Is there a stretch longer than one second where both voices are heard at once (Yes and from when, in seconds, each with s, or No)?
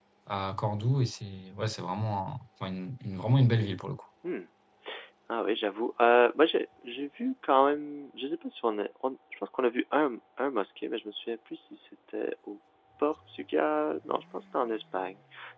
No